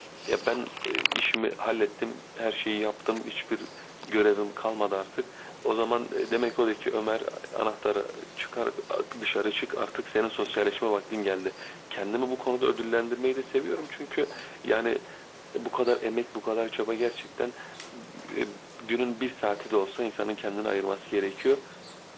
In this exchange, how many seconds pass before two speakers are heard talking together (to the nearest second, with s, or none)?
none